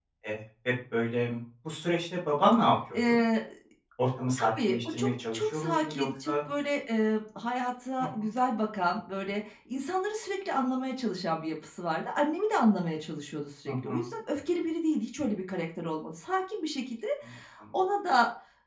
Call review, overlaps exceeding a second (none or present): present